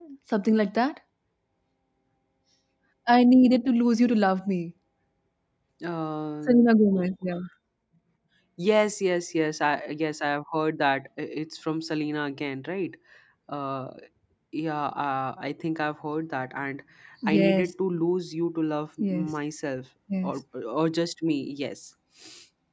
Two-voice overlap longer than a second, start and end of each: none

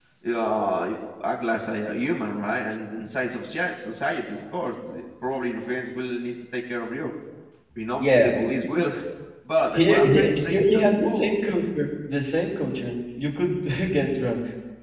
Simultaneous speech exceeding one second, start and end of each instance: 9.8-11.4

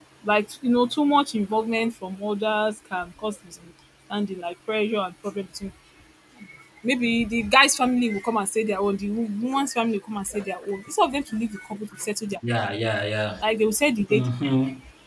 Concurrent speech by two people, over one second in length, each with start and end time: none

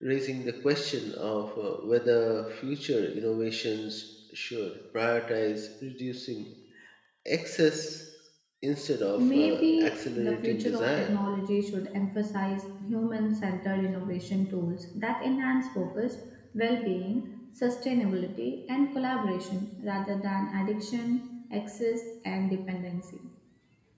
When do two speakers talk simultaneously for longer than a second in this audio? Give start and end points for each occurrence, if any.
9.2-11.1

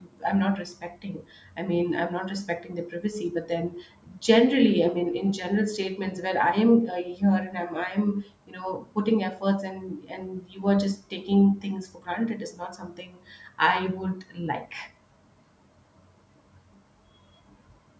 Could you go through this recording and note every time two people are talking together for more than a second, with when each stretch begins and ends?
none

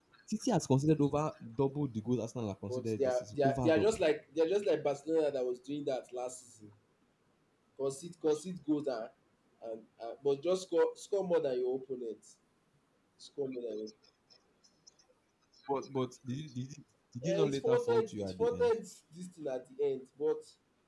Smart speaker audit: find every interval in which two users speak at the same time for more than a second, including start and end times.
2.7-4.0, 17.2-18.7

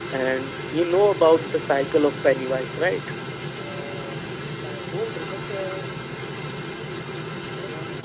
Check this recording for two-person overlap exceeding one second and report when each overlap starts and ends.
none

